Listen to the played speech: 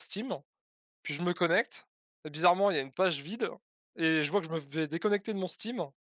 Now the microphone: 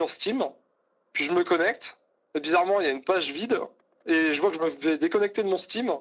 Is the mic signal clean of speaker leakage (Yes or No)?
No